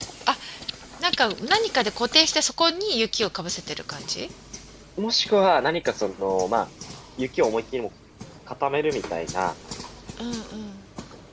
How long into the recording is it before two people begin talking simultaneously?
none

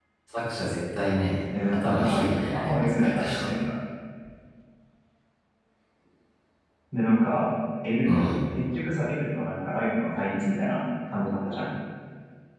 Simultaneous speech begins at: 1.5 s

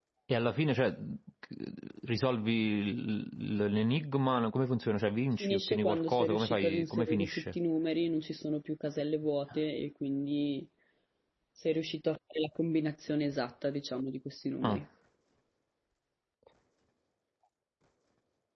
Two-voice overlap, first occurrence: 5.4 s

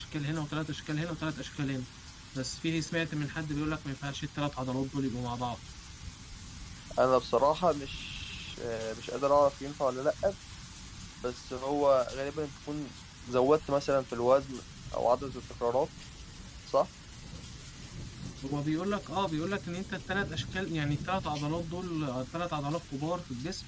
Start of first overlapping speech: none

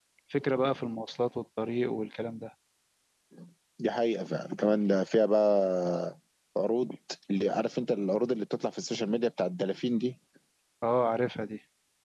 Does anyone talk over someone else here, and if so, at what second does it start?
none

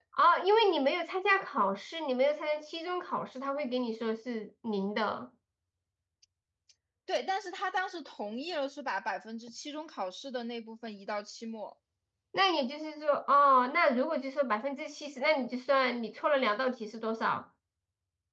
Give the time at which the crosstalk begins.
none

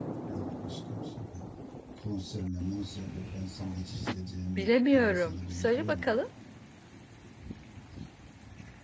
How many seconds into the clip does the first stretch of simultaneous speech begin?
4.6 s

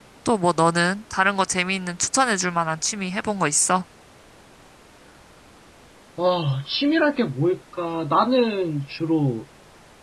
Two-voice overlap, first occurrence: none

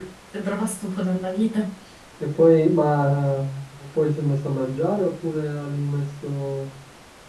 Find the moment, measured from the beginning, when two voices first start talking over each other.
none

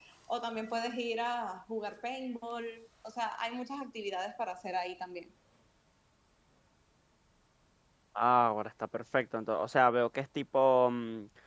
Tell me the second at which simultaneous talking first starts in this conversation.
none

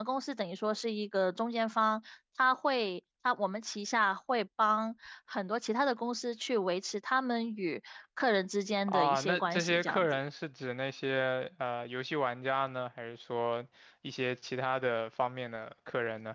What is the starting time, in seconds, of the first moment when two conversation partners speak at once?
8.9 s

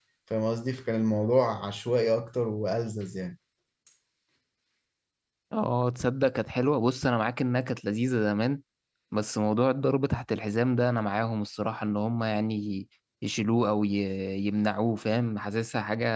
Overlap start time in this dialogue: none

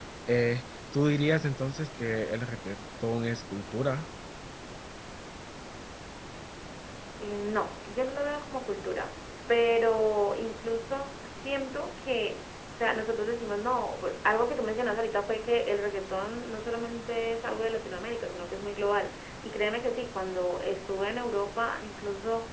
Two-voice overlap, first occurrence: none

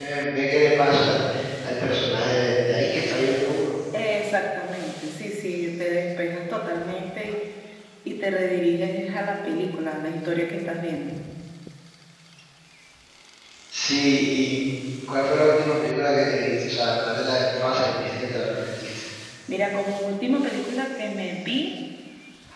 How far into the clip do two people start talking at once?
none

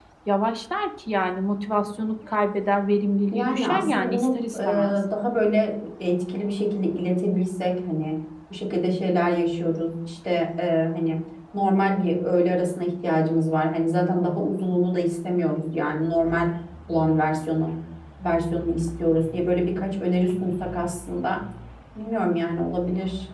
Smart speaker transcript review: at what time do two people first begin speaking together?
3.3 s

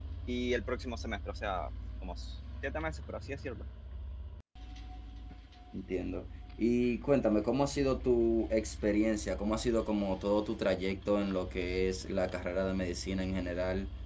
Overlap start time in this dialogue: none

